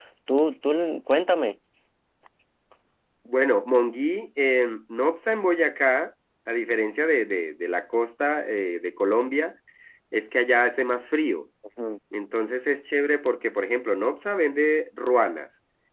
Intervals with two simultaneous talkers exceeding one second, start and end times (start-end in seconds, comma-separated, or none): none